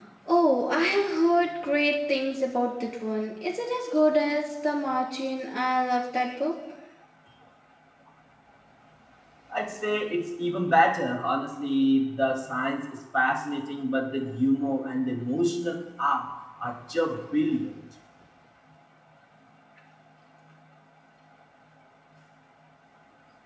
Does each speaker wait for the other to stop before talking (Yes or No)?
Yes